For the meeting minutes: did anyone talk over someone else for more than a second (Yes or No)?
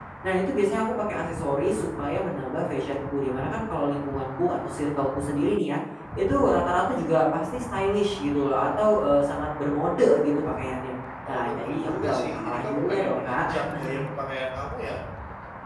Yes